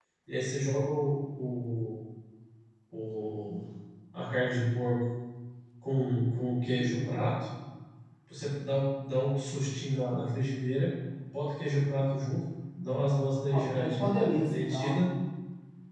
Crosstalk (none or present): present